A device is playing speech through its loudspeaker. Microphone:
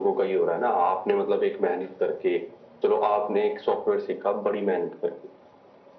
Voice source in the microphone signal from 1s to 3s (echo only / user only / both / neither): echo only